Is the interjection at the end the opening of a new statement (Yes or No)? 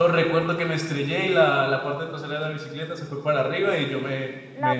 Yes